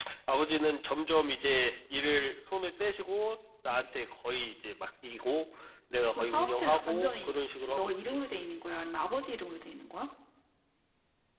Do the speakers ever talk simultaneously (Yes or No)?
Yes